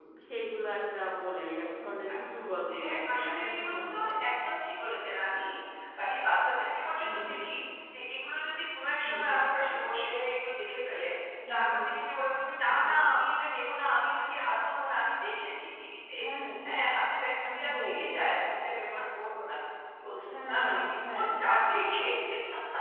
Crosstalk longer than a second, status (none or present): present